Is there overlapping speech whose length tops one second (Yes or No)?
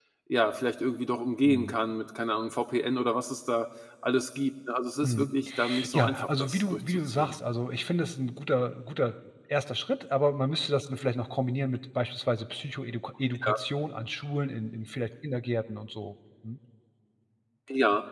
Yes